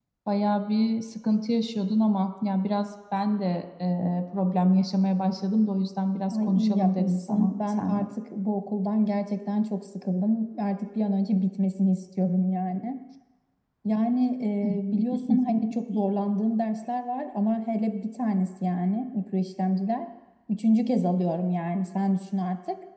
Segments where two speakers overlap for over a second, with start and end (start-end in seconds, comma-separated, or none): 6.4-8.0